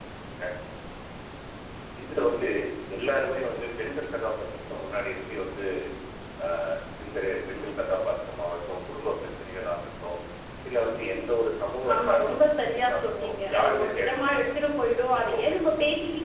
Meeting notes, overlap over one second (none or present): present